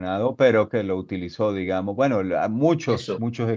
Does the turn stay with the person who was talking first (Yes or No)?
Yes